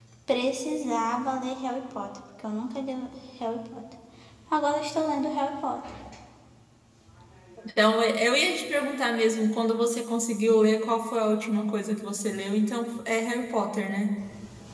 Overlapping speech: No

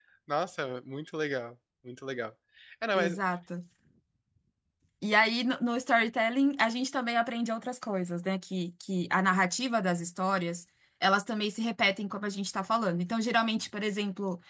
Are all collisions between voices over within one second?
Yes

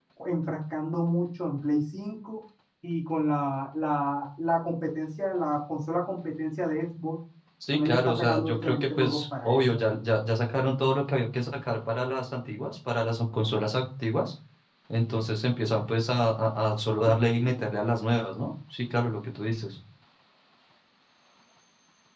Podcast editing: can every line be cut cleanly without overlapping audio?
No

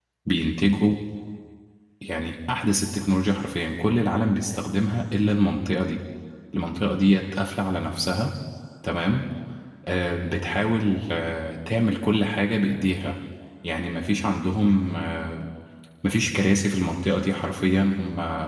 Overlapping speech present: No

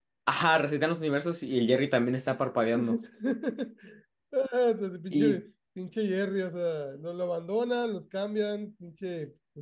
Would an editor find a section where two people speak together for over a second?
No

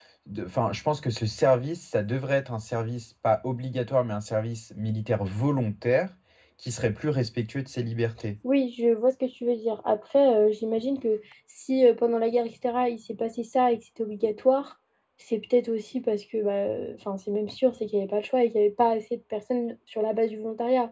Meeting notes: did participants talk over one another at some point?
No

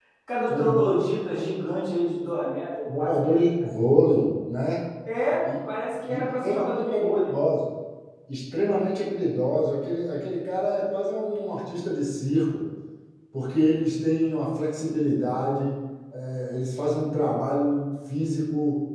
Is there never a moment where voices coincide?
No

